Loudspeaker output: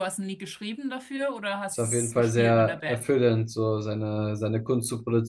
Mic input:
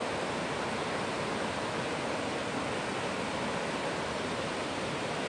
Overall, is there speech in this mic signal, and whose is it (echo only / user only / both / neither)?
neither